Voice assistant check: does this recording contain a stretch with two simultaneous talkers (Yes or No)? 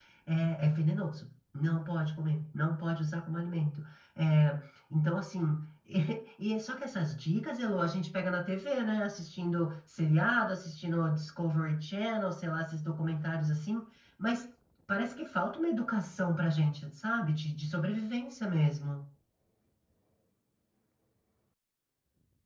No